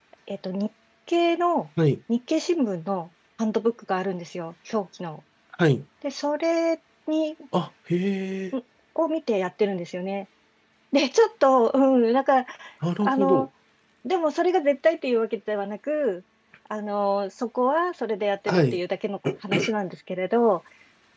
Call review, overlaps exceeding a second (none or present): none